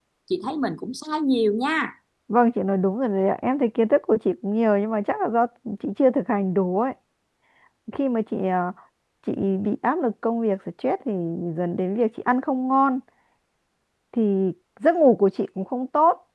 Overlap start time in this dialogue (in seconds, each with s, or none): none